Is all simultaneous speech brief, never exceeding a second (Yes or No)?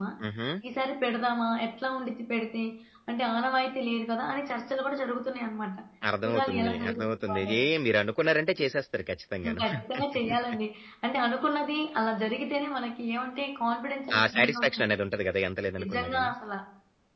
No